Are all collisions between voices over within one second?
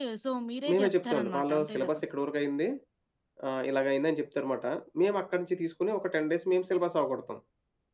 No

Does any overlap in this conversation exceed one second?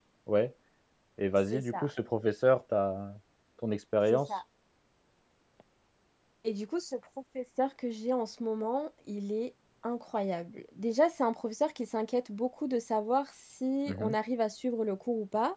No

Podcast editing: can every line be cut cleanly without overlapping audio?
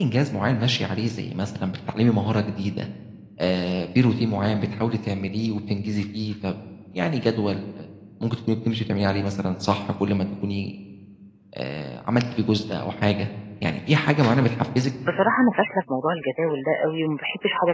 Yes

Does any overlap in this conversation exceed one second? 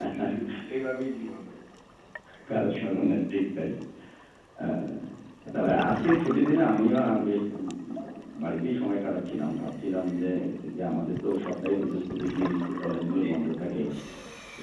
No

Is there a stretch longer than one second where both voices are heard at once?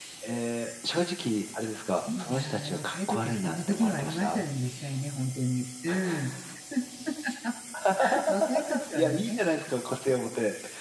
Yes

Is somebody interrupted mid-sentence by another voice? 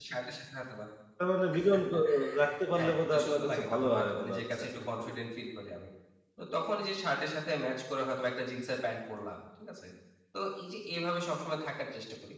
Yes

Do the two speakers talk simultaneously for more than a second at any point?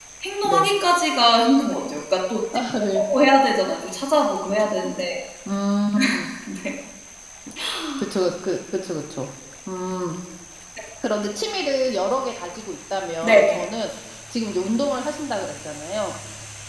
No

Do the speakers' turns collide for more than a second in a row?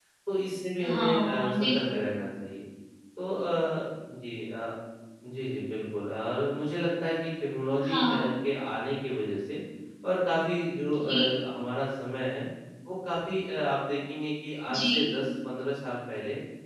Yes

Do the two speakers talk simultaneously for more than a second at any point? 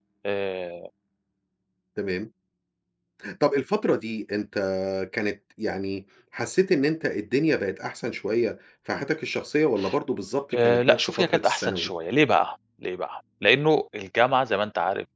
Yes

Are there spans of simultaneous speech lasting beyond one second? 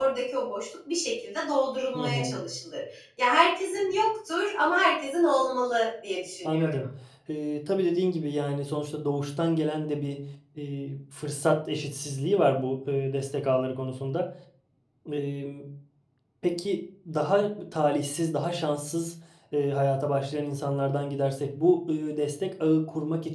No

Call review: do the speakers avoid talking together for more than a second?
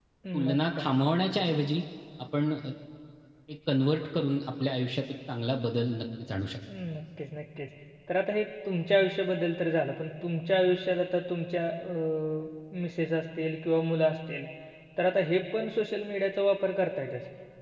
Yes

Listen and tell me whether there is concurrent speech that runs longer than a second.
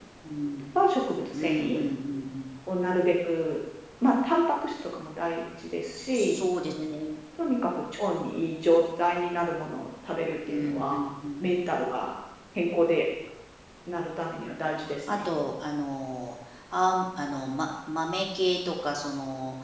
No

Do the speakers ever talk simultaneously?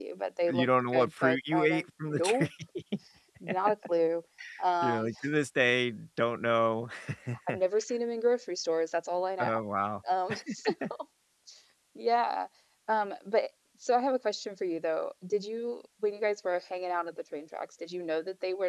Yes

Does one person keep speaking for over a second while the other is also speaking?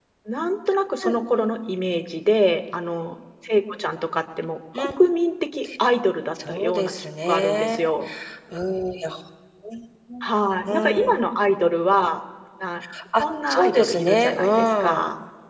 Yes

